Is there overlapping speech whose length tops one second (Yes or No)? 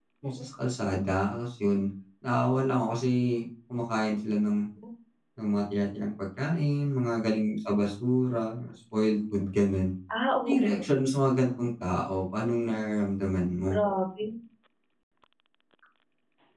No